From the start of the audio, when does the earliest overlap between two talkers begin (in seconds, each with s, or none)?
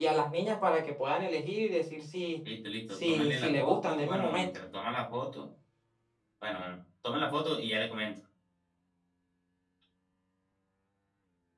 2.9 s